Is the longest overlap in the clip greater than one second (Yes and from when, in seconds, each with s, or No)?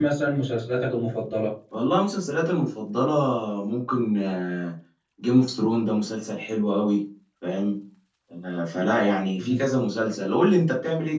No